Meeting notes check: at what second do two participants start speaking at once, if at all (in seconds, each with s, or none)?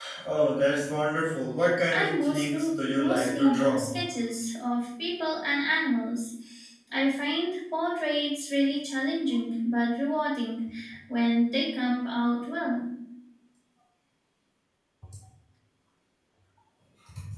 1.9 s